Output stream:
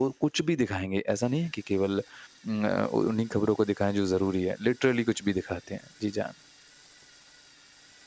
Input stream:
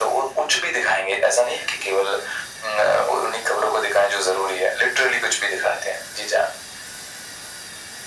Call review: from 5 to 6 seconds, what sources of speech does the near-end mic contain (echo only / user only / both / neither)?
echo only